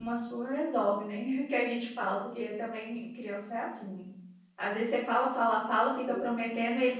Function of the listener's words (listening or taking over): listening